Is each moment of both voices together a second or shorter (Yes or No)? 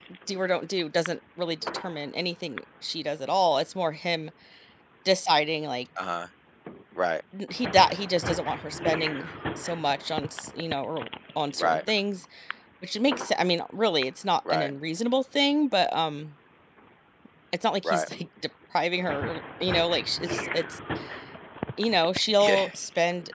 Yes